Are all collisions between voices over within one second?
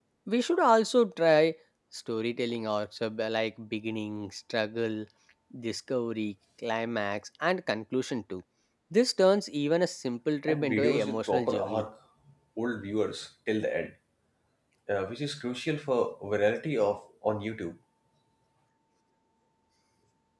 No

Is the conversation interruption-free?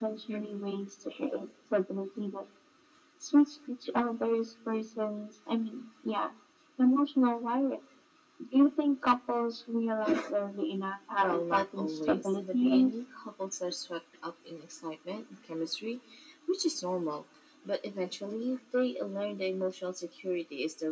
No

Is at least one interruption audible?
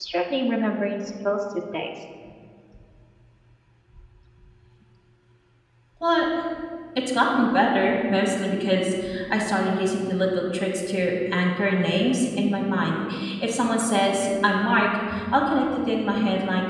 No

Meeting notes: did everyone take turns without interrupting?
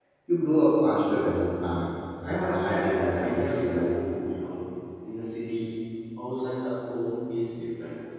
No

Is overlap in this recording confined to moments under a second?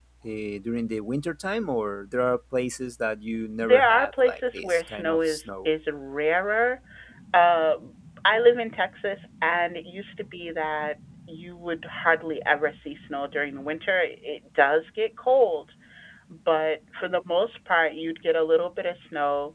No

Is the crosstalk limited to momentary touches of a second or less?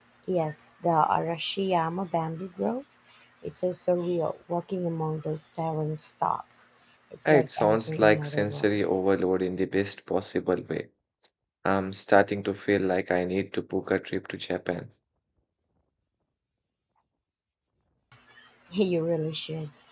No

